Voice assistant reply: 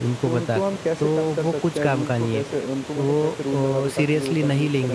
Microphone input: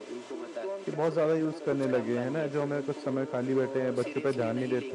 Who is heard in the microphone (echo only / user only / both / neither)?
both